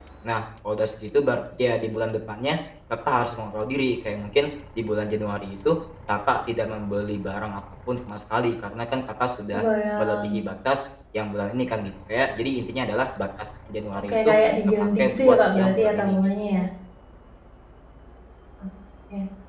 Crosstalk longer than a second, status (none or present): present